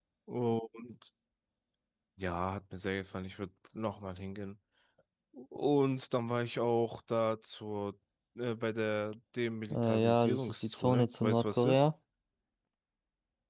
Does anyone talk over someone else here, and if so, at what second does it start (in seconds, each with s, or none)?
9.7 s